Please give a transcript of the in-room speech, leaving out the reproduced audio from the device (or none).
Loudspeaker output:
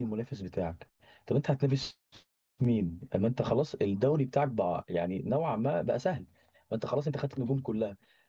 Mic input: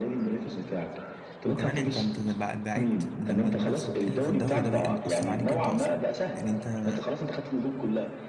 وكمان انت انت بع- بعدت لما المنافسه بتقل في الدوري ده بيأثر عليك انت اصلا يعني انت